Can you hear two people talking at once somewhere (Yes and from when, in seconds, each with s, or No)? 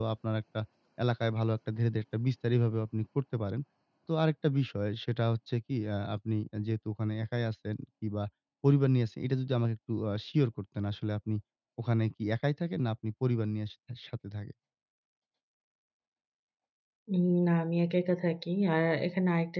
No